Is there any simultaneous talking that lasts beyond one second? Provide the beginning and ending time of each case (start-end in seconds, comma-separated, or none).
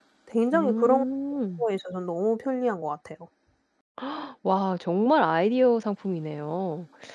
none